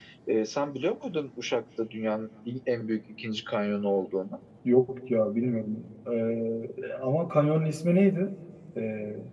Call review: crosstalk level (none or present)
none